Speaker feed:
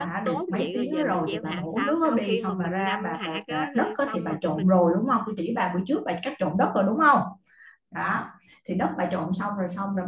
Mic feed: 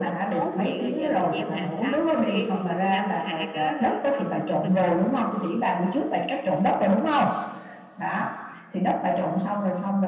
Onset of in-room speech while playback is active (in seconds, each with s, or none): none